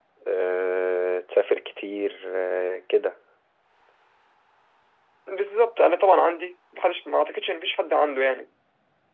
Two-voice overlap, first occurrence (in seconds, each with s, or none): none